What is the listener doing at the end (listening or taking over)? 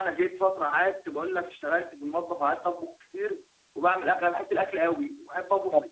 taking over